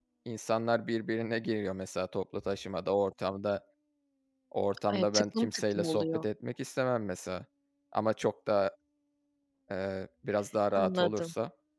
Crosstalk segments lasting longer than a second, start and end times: 4.9-6.3

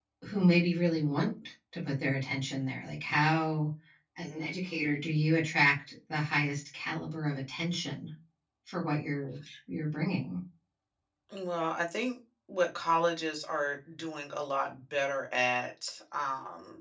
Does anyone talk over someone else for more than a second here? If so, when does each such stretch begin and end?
none

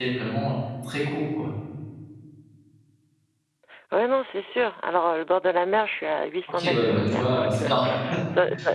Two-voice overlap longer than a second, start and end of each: 6.5-7.7

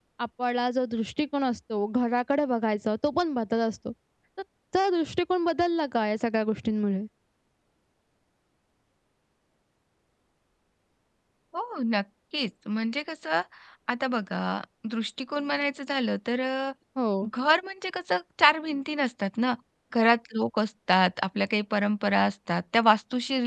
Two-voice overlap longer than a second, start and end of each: none

